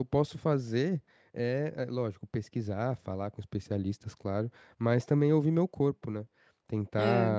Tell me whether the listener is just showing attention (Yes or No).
Yes